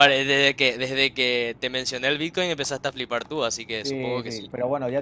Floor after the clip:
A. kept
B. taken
B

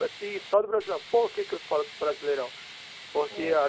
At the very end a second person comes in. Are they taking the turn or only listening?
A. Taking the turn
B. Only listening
B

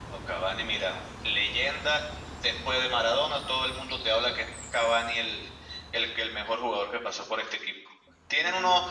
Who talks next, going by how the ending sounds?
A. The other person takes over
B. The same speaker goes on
B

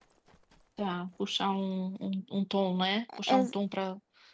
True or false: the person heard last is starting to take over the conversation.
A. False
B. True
A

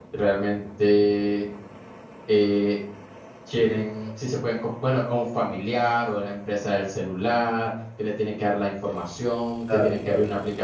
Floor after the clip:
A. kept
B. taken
A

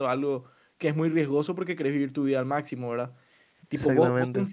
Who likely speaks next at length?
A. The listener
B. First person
B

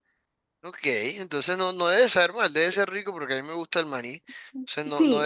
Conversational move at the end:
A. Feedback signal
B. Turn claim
B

